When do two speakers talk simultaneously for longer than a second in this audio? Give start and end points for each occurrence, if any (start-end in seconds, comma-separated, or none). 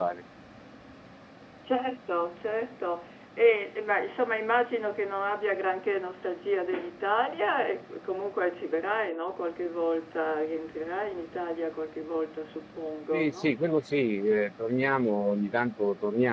none